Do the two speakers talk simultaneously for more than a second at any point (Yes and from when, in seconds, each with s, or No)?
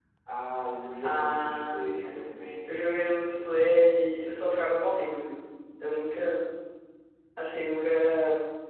Yes, from 1.0 s